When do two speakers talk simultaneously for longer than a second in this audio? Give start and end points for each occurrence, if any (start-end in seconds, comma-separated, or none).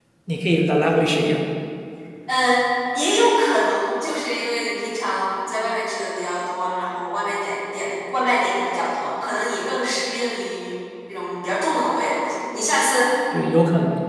none